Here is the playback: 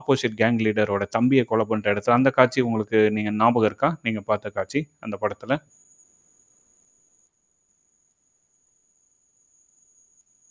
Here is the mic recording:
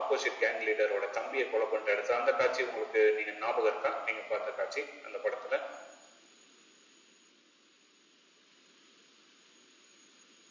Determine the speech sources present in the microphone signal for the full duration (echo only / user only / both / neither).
echo only